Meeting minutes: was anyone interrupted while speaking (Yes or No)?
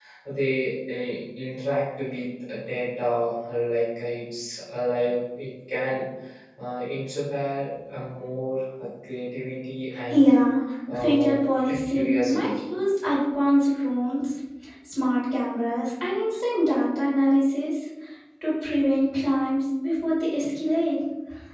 Yes